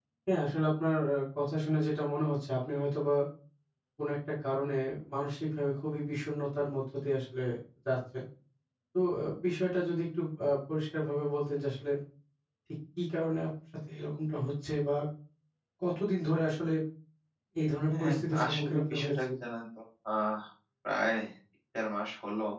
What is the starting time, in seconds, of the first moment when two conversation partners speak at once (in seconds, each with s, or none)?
17.9 s